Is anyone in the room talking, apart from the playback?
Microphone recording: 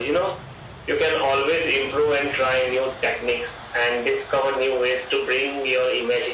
No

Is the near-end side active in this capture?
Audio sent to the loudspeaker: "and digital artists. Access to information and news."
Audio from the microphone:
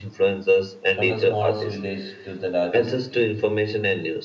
Yes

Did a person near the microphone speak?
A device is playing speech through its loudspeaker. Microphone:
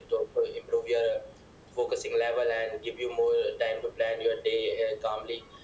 No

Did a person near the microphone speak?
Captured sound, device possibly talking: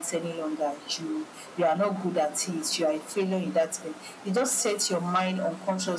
No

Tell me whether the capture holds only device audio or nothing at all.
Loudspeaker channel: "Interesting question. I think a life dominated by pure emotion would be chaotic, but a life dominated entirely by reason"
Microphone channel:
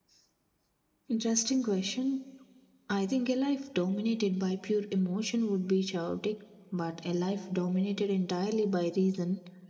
Yes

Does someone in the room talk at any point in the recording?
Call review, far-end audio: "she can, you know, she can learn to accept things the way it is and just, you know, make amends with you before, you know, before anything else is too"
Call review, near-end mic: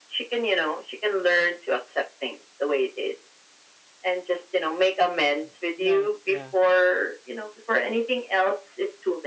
Yes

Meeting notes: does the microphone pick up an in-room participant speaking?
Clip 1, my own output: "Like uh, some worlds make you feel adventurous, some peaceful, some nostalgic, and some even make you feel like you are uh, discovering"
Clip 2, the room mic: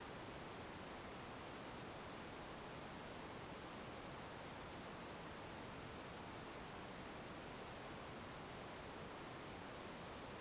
No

